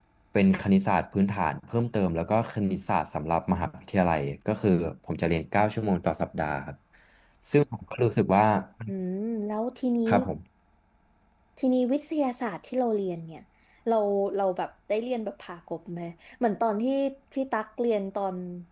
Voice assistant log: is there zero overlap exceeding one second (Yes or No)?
Yes